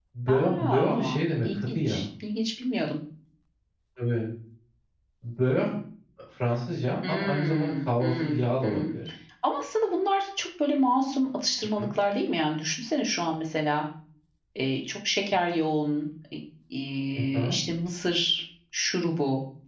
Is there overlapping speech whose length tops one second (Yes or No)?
Yes